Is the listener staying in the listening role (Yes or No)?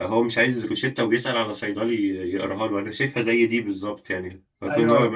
Yes